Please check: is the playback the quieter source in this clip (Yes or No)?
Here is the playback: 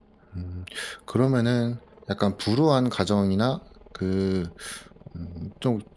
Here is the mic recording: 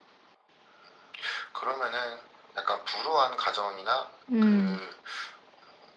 Yes